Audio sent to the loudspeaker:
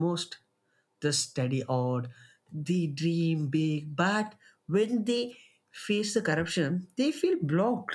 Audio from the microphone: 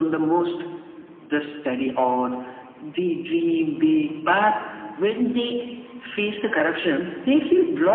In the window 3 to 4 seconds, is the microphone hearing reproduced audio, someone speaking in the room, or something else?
echo only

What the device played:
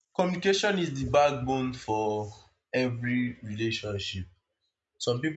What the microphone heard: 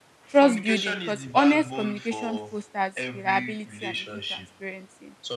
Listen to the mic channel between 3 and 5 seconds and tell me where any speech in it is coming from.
both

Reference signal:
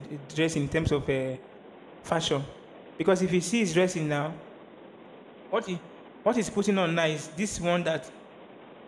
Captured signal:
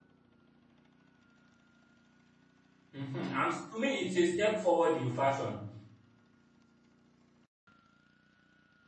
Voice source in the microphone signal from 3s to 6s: user only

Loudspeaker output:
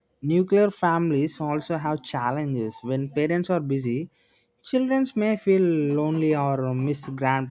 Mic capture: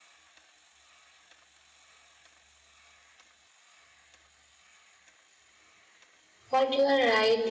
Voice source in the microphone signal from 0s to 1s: neither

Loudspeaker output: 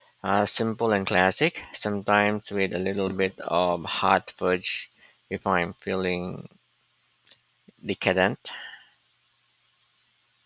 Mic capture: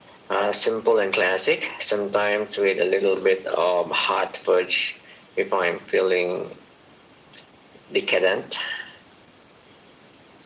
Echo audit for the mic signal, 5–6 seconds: echo only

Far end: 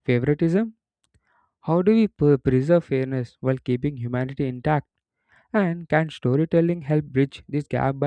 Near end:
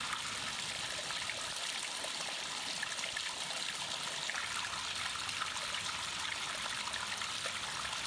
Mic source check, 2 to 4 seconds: neither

